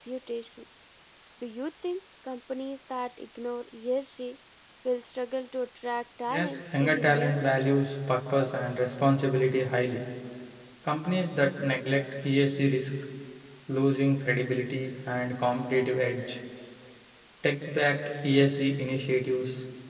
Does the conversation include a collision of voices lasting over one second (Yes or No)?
Yes